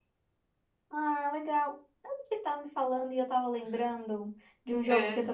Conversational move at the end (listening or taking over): listening